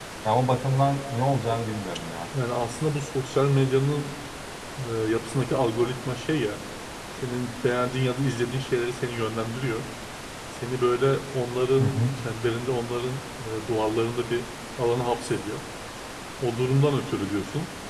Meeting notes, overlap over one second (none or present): none